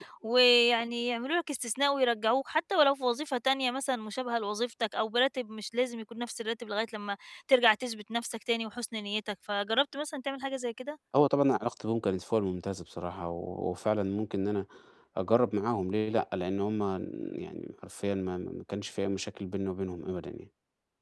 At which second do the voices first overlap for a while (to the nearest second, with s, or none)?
none